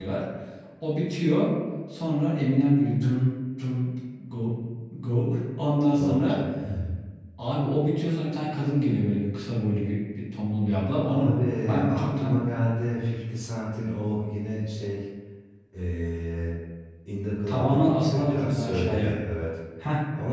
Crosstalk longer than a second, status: present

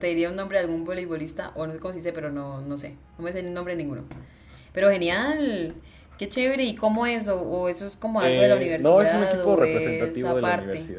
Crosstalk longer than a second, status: present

